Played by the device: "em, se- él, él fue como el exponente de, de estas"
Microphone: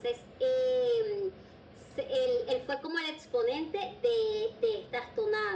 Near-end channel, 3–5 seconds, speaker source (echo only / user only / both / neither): echo only